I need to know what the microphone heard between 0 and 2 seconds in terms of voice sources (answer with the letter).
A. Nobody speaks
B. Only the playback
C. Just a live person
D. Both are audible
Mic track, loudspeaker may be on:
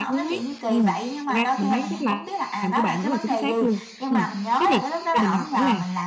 D